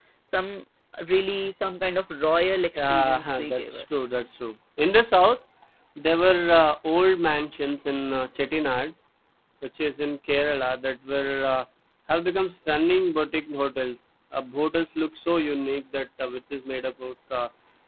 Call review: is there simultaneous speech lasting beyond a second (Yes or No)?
Yes